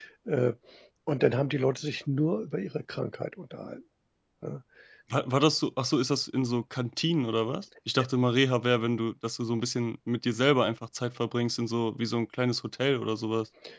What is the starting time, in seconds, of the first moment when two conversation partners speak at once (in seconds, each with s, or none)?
none